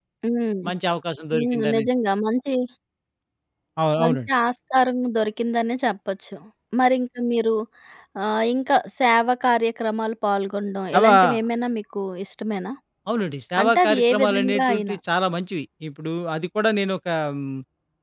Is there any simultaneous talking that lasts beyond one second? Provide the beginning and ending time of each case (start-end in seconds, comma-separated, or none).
13.6-14.9